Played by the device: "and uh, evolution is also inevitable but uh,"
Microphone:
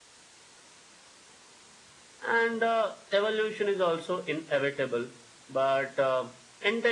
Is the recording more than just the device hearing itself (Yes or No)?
No